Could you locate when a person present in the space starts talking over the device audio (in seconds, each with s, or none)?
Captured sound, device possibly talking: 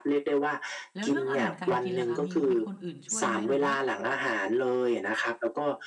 0.9 s